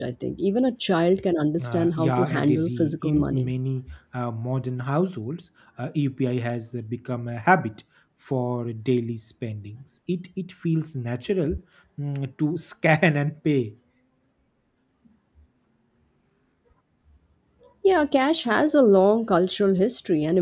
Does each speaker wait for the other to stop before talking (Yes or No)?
No